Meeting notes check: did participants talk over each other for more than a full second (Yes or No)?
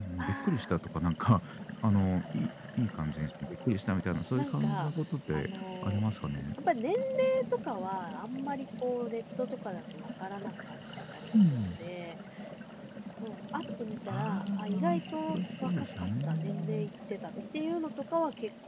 Yes